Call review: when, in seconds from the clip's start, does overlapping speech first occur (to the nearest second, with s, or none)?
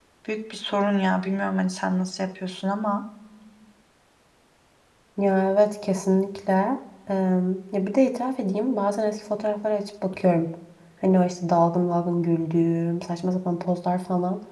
none